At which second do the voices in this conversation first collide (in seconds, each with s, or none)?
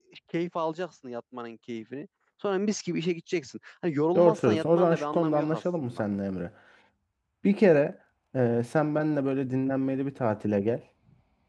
4.2 s